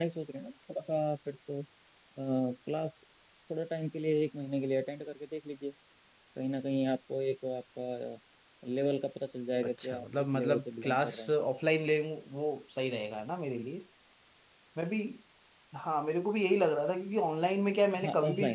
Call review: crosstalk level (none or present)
present